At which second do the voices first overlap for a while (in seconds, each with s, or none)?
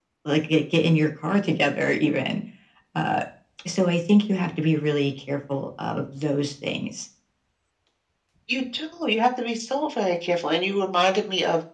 none